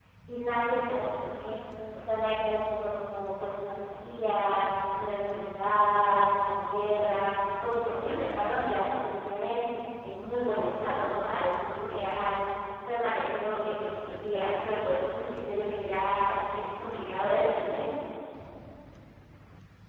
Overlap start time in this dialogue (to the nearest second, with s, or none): none